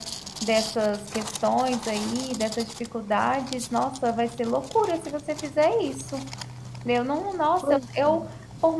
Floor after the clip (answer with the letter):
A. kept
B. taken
A